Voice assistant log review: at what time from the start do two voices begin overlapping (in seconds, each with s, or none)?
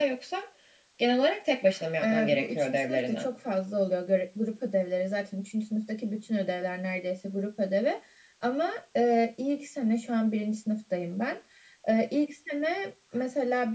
2.0 s